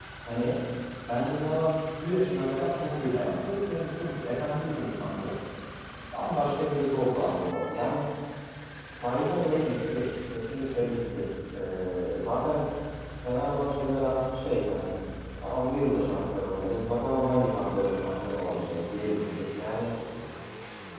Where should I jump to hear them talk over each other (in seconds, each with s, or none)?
none